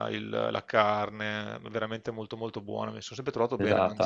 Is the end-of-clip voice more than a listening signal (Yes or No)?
Yes